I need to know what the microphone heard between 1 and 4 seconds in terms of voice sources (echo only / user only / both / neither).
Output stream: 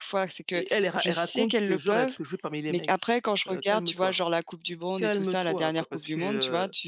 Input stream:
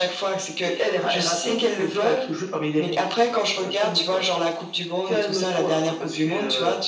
echo only